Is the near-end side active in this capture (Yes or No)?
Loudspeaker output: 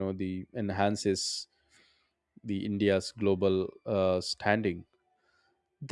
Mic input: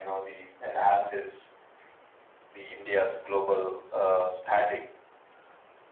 No